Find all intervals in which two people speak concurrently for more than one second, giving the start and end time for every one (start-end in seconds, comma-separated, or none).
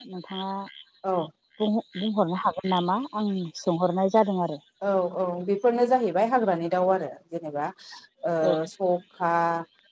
none